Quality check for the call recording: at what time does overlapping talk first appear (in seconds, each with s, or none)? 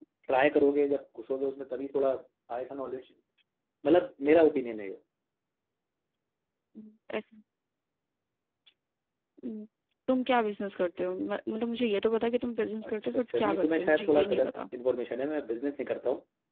12.8 s